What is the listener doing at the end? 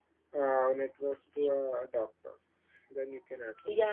taking over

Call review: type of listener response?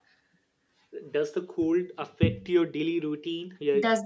taking over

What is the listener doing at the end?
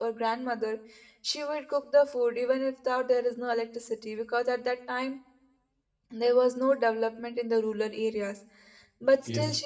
listening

